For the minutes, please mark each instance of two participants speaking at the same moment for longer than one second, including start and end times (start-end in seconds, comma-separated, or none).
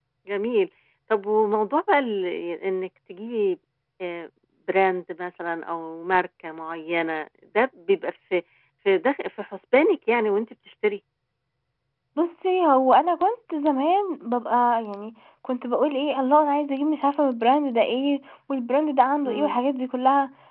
none